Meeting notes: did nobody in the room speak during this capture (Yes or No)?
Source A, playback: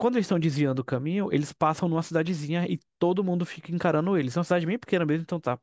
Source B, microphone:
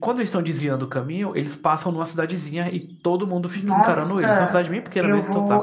No